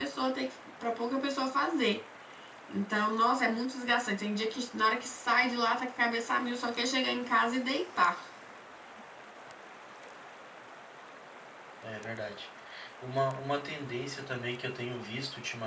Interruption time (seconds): none

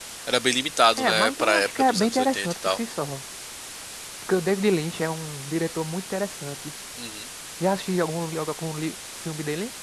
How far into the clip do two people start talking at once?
1.0 s

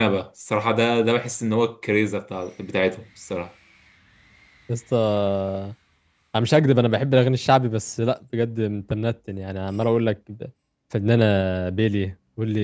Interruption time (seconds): none

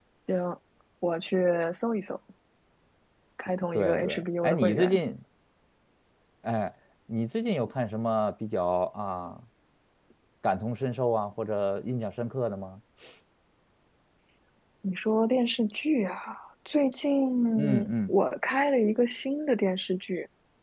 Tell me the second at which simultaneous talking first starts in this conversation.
3.7 s

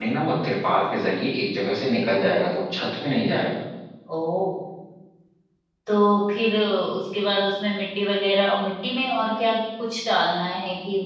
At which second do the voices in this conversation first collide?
none

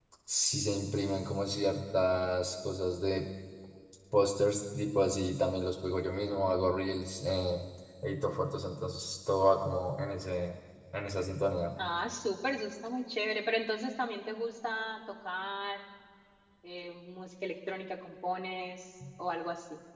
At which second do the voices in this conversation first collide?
none

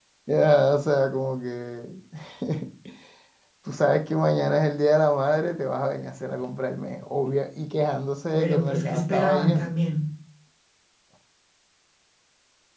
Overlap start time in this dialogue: 8.3 s

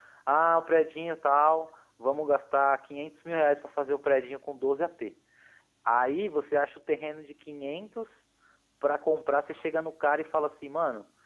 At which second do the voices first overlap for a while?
none

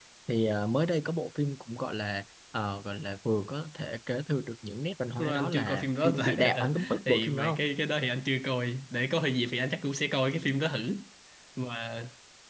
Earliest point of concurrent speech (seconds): 5.2 s

